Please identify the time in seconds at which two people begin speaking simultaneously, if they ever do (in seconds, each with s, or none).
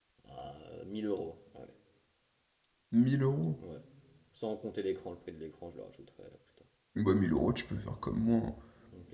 none